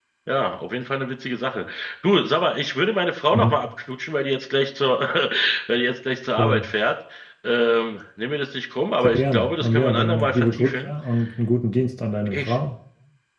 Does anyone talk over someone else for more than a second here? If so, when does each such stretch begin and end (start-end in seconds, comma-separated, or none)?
9.0-10.9